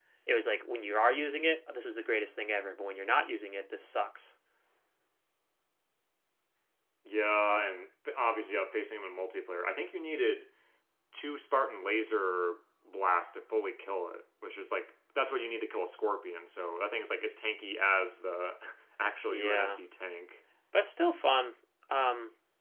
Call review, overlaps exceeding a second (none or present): none